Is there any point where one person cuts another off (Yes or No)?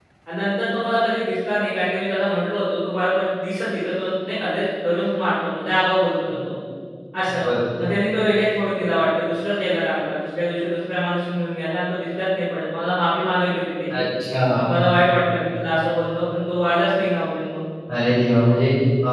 No